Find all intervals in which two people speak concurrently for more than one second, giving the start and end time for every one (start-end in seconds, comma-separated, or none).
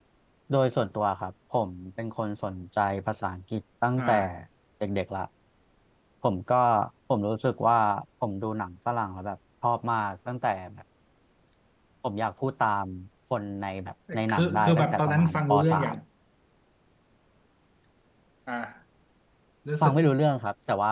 14.3-15.9